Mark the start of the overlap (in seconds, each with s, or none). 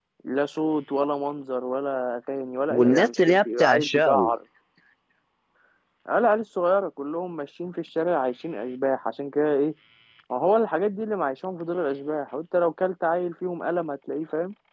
2.7 s